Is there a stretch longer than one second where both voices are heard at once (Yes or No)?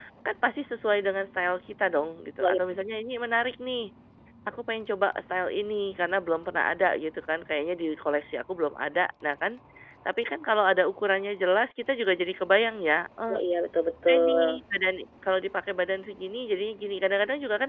No